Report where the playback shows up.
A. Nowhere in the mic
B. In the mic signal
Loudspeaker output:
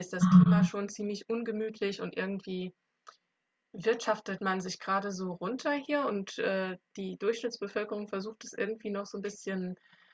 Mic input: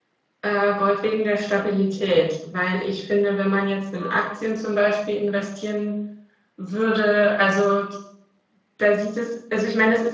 A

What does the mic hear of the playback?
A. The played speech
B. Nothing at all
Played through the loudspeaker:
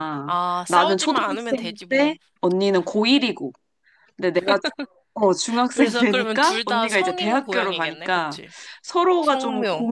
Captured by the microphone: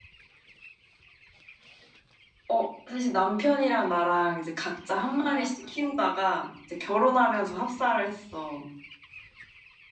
B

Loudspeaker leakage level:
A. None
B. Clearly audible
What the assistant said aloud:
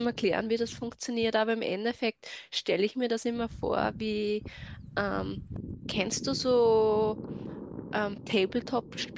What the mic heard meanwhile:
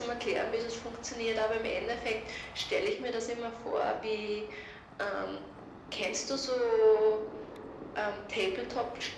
B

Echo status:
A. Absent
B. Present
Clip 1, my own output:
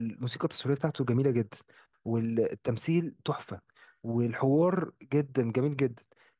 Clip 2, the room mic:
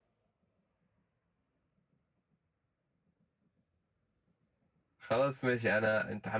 A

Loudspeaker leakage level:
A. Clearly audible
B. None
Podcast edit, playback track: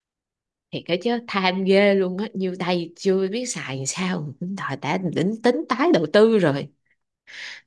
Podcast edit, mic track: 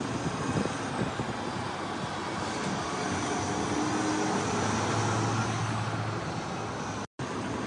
B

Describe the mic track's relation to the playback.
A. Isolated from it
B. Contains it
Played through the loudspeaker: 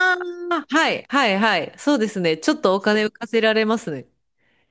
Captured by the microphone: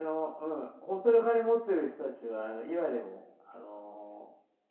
A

